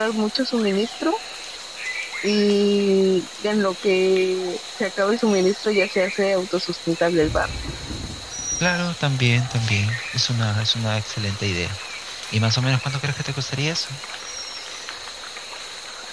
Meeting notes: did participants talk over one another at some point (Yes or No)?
No